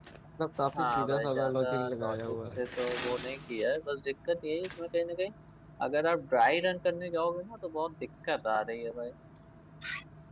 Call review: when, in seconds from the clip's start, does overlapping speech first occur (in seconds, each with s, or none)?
0.8 s